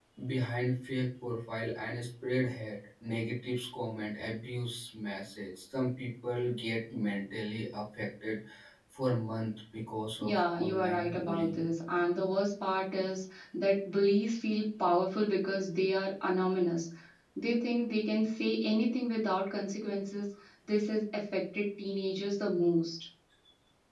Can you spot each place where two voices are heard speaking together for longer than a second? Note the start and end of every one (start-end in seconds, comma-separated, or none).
10.2-11.6